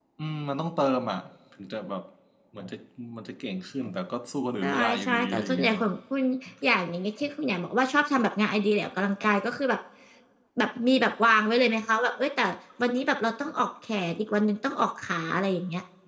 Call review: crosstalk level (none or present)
present